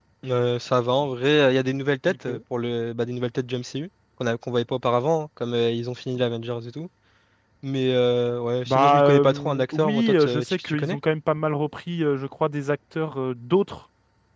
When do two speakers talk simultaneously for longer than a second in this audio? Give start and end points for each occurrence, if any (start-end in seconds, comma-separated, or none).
8.7-11.0